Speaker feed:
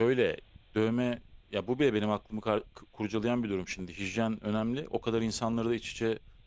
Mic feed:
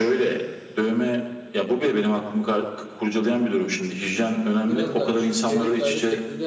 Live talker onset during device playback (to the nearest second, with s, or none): 5 s